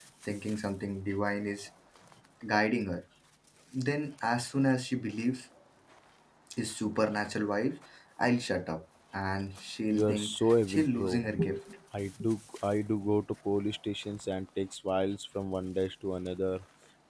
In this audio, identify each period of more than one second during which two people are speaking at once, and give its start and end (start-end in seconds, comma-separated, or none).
9.9-11.3